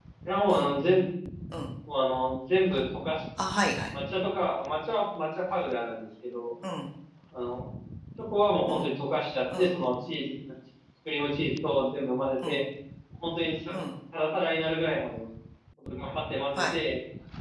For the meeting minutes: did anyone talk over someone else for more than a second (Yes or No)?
No